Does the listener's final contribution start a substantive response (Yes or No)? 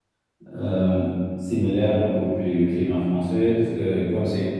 No